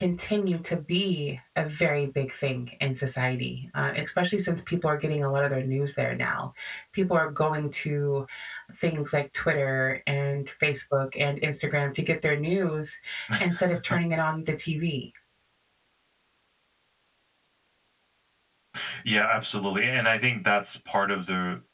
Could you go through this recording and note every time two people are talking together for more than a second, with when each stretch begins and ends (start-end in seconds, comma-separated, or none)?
none